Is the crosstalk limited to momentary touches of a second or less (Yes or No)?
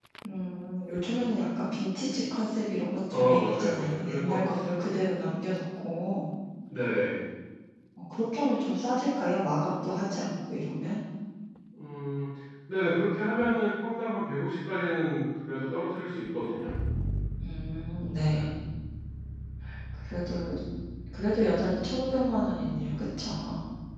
No